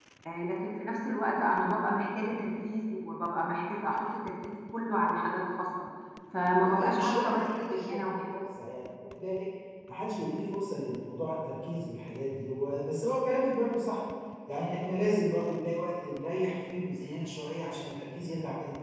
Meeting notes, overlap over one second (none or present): present